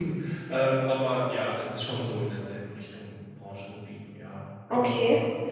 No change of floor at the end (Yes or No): No